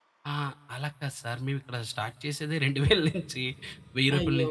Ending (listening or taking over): listening